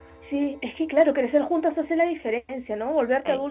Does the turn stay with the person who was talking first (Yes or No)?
Yes